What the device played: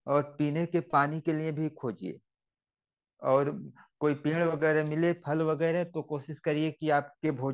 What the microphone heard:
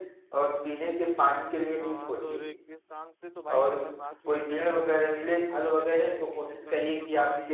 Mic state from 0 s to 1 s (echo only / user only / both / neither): echo only